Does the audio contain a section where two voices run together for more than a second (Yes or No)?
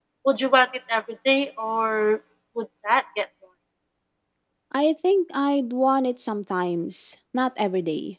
No